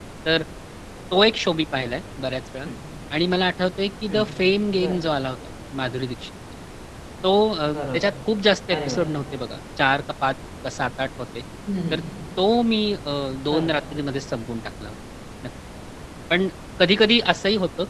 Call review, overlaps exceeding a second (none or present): none